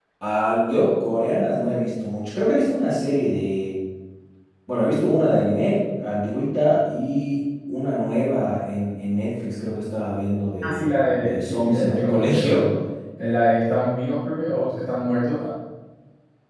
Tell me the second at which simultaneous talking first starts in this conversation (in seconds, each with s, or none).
10.6 s